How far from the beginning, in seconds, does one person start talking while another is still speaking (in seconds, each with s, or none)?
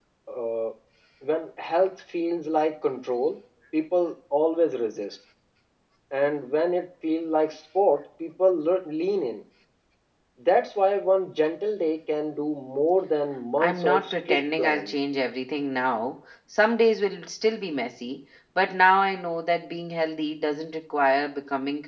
13.6 s